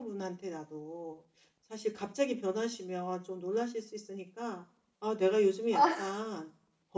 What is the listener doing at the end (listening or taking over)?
listening